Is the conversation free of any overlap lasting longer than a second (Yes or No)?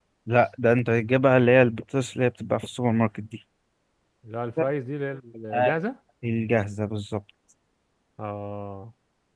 Yes